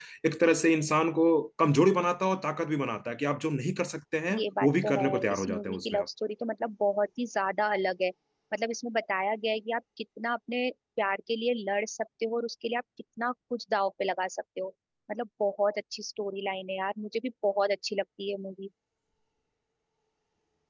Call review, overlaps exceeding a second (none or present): present